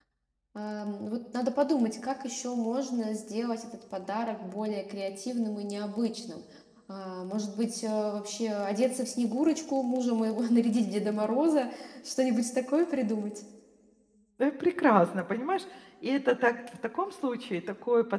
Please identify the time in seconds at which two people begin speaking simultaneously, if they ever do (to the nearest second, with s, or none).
none